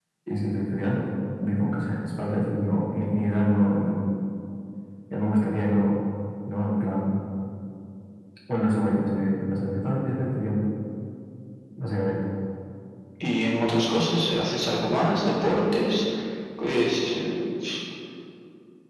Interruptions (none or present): none